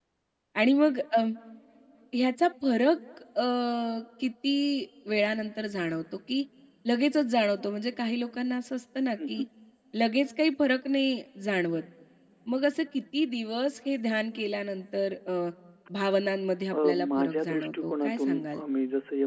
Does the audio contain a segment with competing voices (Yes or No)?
Yes